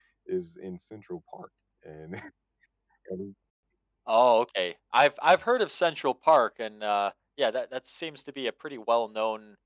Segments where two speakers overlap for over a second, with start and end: none

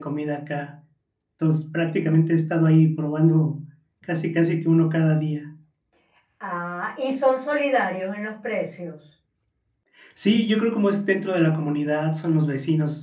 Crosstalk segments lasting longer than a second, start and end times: none

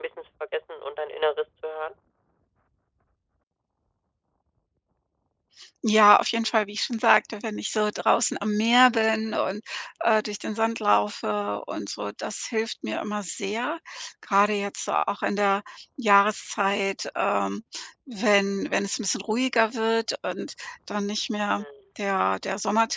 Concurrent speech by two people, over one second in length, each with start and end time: none

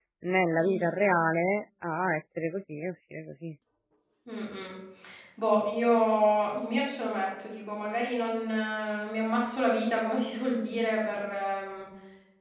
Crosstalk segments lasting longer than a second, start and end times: none

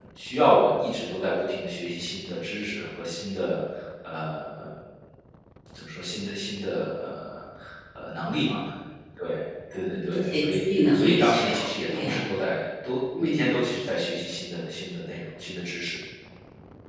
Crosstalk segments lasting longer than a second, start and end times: 9.8-12.1

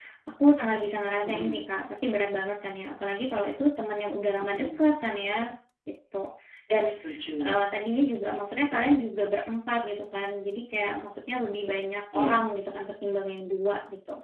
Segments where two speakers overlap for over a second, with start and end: none

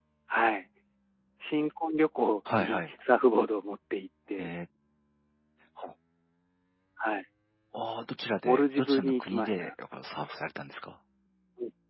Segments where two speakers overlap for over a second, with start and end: 8.4-9.7

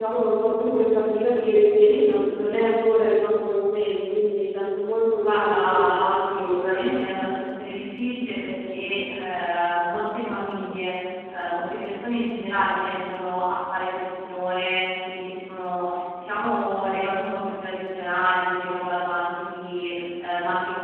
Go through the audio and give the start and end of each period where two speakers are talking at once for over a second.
5.2-6.8

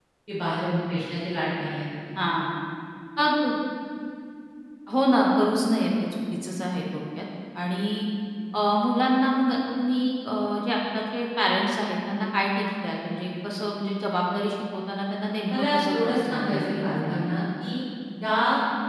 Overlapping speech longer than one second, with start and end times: 15.5-17.3

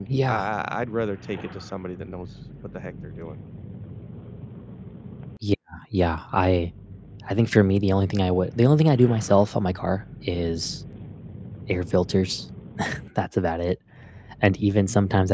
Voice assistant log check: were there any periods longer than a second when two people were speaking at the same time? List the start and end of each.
none

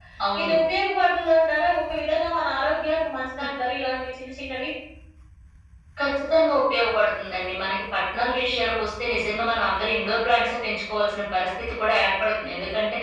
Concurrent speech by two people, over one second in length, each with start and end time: none

